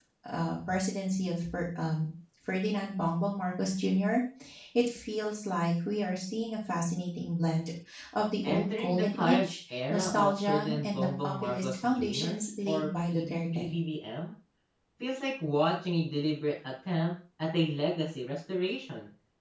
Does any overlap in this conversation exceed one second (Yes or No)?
Yes